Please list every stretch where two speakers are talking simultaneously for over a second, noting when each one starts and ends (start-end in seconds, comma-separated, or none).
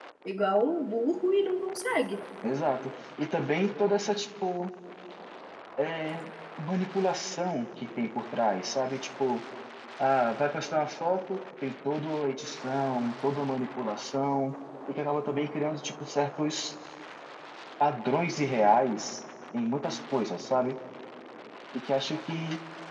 none